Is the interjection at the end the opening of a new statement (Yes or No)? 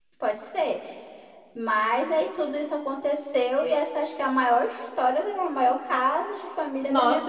Yes